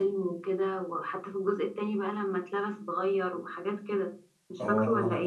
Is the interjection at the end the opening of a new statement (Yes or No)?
Yes